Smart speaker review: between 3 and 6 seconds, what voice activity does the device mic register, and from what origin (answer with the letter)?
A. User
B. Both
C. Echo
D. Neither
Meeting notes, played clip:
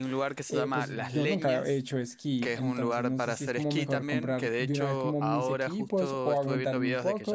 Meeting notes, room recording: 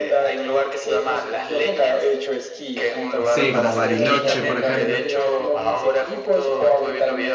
B